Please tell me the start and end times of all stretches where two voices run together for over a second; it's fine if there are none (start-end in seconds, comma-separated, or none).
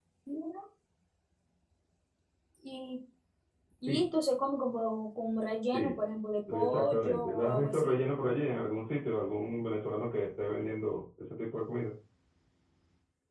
6.5-8.0